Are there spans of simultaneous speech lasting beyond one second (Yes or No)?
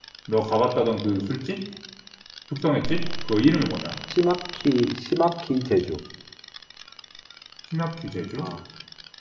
No